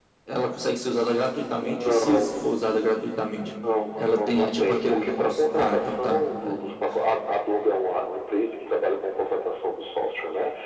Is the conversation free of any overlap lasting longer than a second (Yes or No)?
No